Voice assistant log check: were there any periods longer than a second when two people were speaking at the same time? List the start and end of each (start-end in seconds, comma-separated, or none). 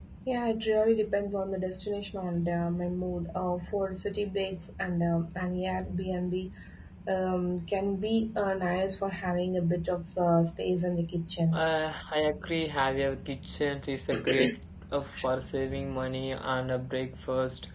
none